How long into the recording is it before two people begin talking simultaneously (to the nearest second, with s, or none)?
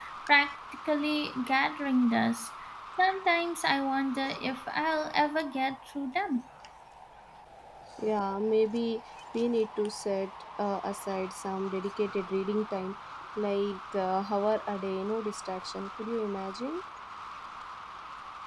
none